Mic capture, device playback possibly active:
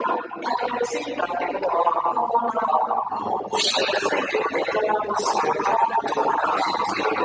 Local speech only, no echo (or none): none